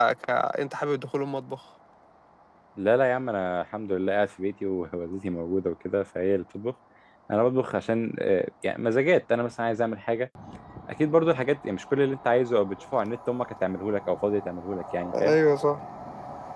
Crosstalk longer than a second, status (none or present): none